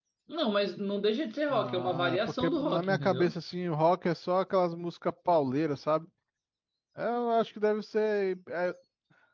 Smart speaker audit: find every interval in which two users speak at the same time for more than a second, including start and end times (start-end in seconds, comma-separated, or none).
1.5-3.3